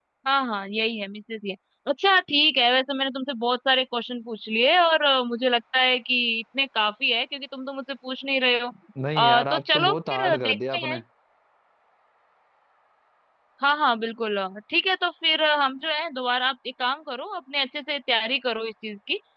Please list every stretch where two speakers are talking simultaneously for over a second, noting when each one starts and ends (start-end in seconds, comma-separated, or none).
9.2-11.0